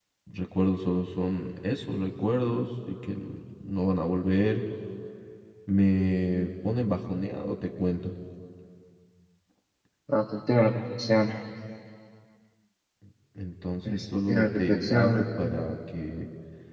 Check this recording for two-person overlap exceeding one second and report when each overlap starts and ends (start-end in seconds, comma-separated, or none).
13.9-15.6